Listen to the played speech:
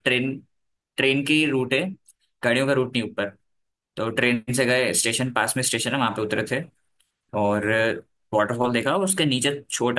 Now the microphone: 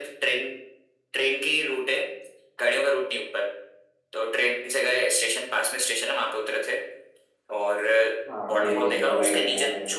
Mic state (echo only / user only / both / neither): both